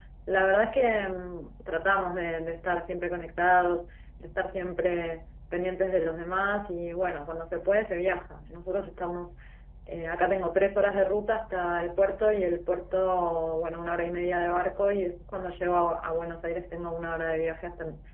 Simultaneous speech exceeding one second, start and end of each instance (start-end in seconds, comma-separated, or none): none